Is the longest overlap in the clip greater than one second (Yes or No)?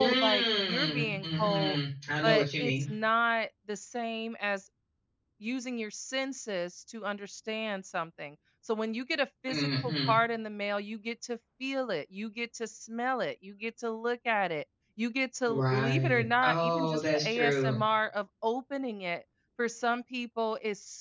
Yes